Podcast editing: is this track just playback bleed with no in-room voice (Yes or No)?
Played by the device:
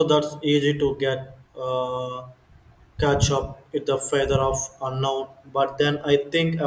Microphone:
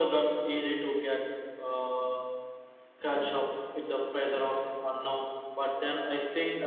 Yes